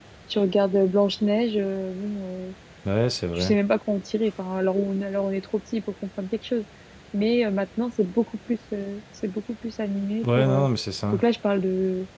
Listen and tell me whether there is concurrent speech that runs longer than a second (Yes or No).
No